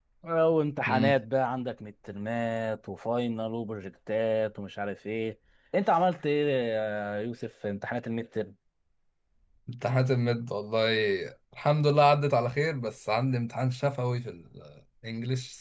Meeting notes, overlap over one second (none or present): none